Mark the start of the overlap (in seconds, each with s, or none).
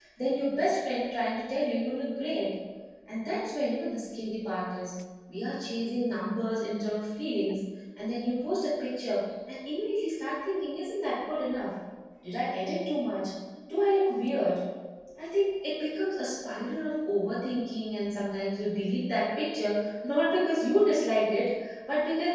none